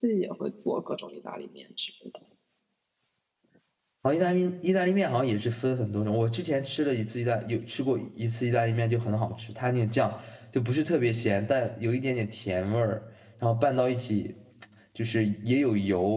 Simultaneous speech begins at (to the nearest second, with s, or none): none